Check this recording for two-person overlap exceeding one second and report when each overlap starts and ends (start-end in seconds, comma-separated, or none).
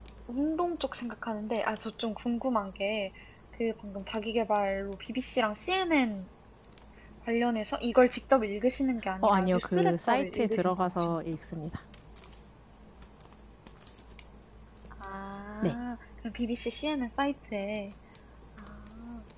9.2-11.2